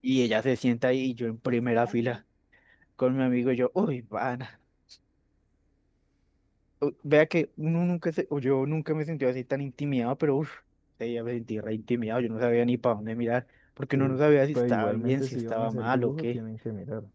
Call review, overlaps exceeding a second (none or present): present